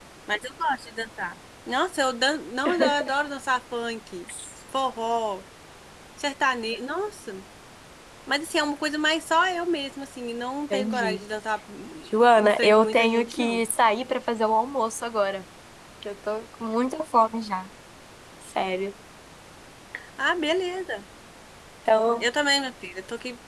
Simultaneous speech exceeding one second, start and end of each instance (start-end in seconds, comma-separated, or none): 12.4-13.6